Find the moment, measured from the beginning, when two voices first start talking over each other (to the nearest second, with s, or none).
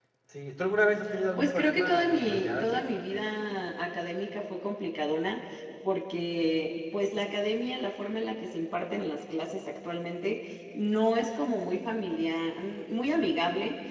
1 s